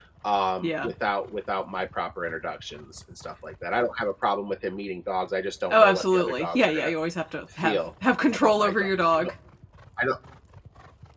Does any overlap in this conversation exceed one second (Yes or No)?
Yes